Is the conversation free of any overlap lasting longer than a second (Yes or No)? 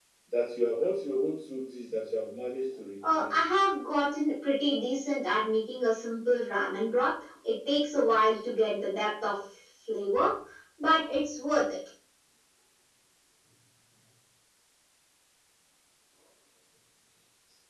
Yes